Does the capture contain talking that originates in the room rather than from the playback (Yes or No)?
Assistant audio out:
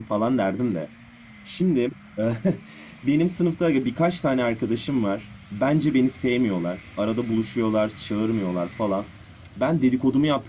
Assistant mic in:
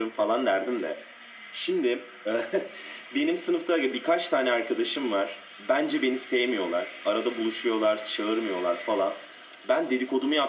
No